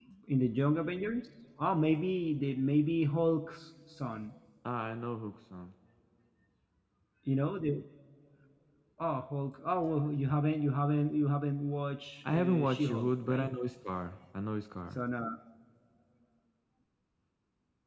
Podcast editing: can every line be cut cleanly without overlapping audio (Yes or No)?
No